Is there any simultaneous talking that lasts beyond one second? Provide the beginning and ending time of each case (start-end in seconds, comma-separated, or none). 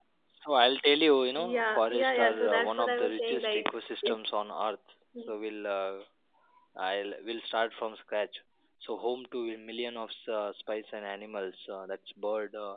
1.4-4.2